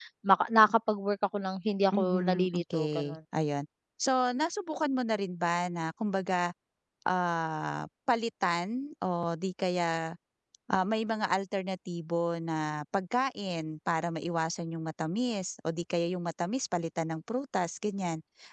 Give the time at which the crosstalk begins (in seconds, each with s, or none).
1.9 s